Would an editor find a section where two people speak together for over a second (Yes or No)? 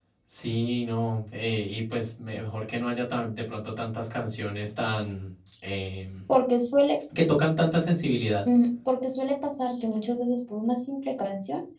No